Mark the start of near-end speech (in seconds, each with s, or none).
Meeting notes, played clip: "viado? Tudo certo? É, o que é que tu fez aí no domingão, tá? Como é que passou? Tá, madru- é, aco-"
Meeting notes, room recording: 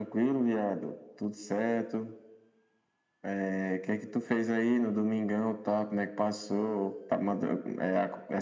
none